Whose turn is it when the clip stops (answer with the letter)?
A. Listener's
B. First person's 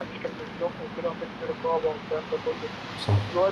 B